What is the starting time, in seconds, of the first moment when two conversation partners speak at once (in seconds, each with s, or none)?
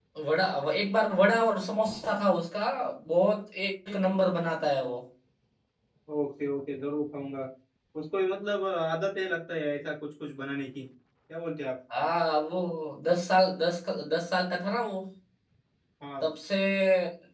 none